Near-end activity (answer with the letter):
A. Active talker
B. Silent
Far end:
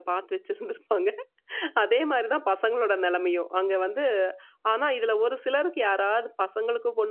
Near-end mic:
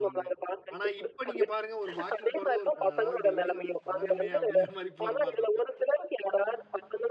A